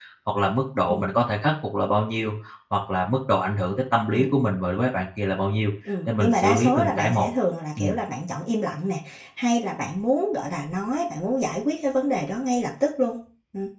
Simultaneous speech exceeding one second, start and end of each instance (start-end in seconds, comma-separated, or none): 6.1-7.3